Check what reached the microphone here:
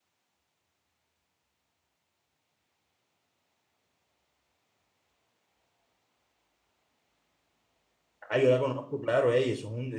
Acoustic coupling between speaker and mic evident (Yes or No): No